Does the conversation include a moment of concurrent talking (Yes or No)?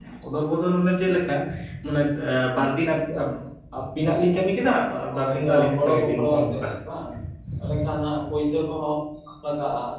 Yes